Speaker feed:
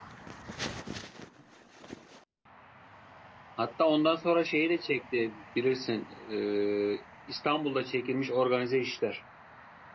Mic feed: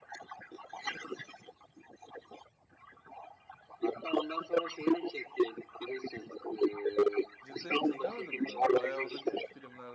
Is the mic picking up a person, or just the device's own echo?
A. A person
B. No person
A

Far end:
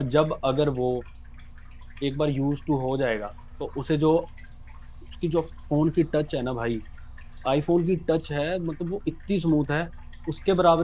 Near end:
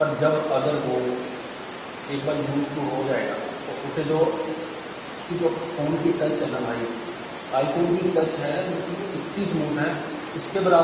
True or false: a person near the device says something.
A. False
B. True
A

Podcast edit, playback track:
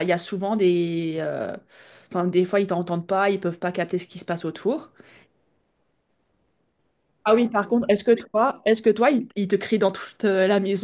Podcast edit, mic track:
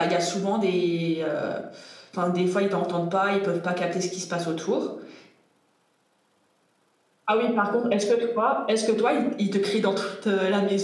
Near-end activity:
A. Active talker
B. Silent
B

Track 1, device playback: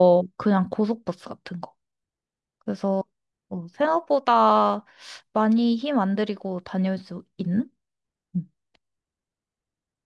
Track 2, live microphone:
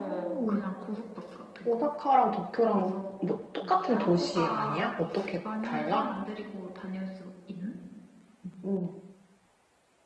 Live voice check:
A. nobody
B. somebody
B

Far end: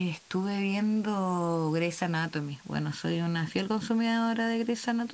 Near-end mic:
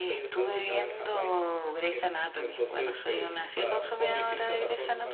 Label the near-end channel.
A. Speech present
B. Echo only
A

